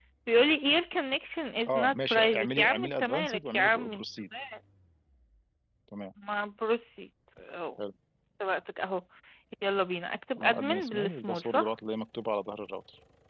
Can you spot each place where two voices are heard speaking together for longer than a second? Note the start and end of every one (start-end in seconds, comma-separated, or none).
1.7-4.0, 10.4-11.7